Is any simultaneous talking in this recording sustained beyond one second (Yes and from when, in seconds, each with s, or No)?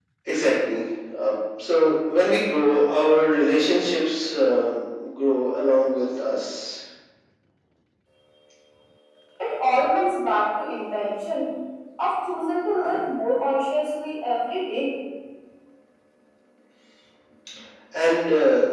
No